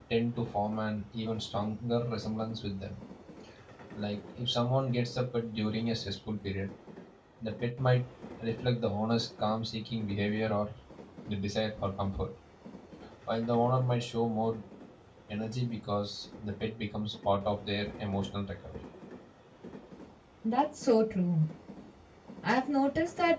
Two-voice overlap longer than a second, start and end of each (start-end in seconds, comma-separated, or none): none